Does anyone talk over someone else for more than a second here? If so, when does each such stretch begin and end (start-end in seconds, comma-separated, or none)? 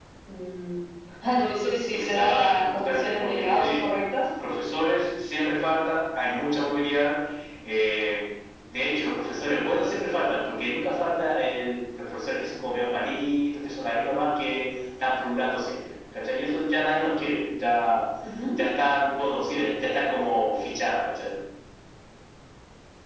1.9-3.9